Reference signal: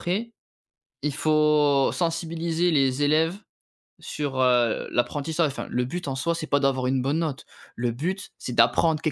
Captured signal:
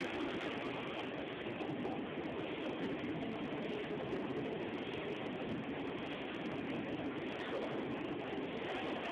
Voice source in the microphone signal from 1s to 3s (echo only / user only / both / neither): neither